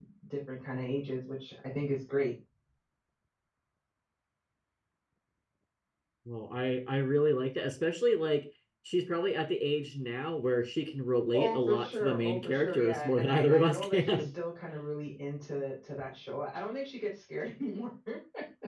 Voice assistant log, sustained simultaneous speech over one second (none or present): present